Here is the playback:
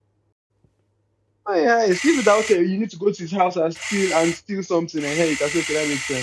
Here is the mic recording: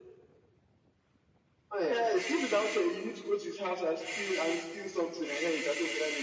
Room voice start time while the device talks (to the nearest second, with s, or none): none